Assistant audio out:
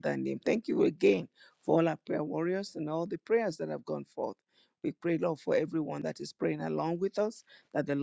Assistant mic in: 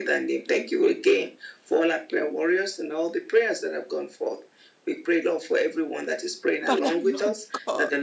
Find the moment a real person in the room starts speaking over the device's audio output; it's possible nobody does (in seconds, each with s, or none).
6.7 s